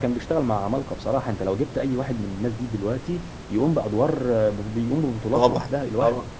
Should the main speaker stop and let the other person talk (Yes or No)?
Yes